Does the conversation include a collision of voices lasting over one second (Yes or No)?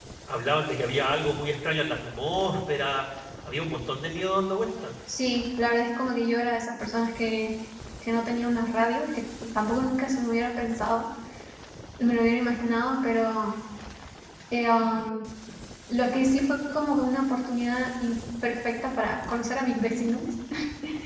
No